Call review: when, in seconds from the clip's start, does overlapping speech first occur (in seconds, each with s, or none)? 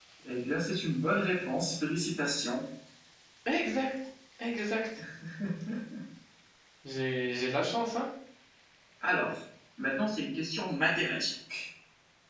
none